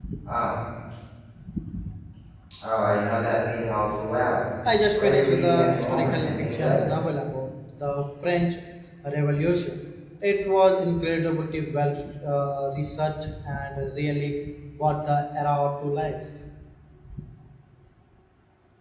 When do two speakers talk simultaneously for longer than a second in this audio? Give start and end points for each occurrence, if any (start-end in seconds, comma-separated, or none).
4.9-6.8